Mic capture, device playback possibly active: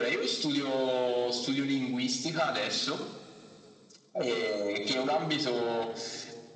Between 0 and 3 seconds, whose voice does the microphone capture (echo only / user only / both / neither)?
echo only